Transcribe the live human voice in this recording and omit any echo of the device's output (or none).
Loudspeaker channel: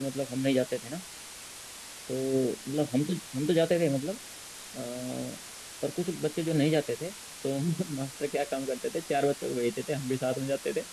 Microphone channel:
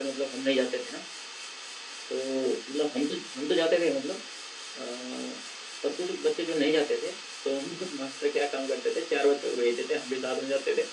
none